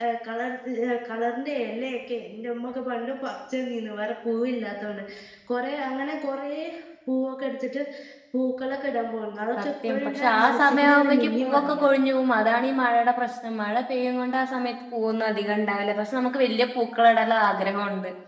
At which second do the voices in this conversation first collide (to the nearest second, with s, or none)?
10 s